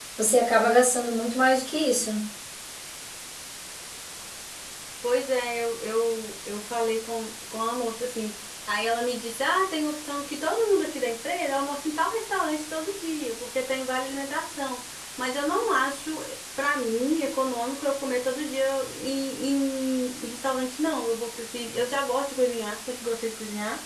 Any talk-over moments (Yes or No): No